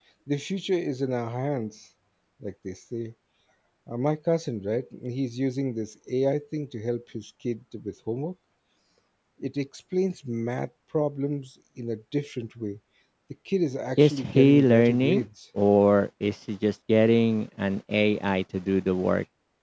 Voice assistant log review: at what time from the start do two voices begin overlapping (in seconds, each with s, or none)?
14.0 s